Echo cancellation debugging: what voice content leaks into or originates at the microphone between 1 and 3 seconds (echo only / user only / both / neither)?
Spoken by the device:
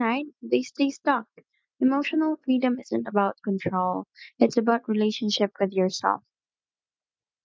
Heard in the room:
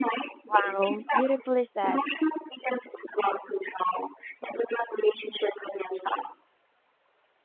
both